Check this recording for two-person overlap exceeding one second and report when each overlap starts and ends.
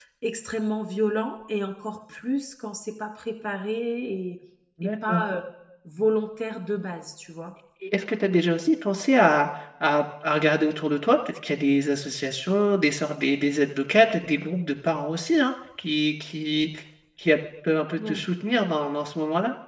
none

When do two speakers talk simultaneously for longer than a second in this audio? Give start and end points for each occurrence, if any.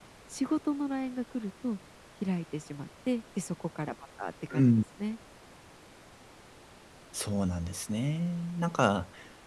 none

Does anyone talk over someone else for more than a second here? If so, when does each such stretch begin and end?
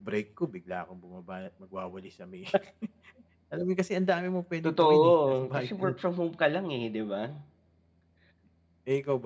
4.6-5.9

